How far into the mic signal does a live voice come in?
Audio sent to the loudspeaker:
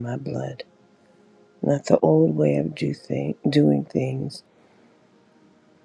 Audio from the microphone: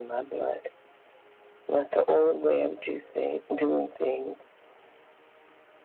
none

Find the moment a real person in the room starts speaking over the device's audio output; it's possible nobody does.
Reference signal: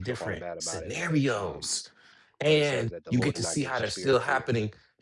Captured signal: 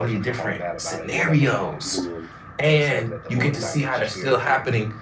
1.1 s

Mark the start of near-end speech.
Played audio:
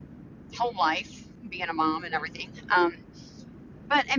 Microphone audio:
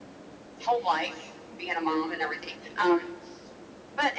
none

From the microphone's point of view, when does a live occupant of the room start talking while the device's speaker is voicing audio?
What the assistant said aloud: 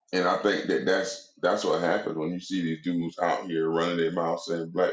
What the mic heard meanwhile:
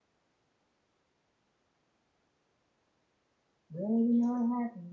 3.7 s

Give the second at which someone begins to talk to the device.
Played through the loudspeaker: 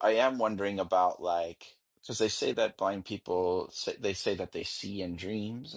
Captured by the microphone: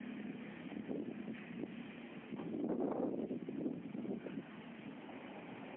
none

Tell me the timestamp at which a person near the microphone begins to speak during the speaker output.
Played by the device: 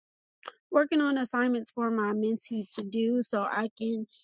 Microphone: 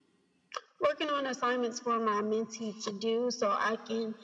none

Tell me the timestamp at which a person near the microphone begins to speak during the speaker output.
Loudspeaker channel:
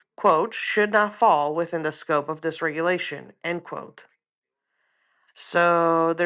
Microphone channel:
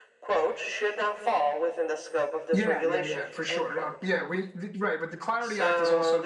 2.5 s

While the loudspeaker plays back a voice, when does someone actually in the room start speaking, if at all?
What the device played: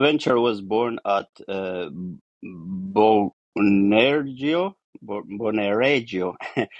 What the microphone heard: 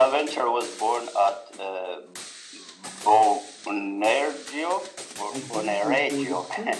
5.3 s

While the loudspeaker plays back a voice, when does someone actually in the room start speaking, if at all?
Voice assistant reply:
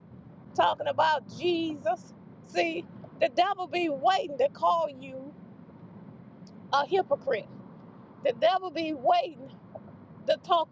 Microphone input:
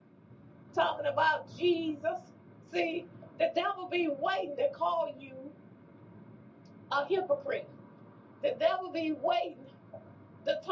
none

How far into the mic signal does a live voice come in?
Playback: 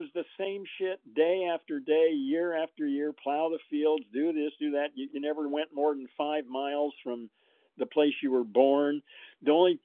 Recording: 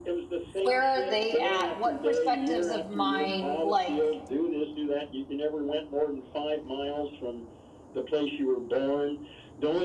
0.6 s

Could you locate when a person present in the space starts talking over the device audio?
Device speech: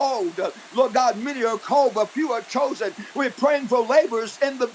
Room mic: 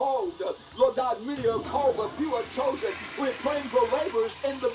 none

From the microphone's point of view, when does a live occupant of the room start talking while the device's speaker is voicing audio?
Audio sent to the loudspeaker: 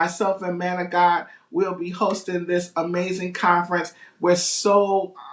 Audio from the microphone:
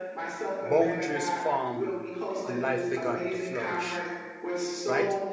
0.6 s

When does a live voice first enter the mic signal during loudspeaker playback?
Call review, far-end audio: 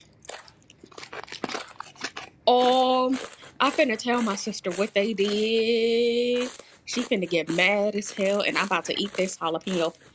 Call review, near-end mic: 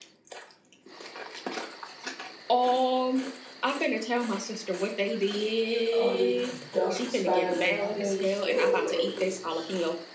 6.0 s

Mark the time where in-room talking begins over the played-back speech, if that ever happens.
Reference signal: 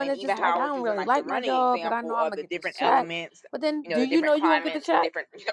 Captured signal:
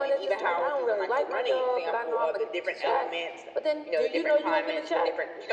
none

